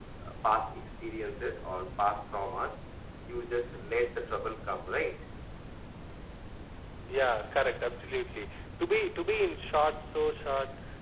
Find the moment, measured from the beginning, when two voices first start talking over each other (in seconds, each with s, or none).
none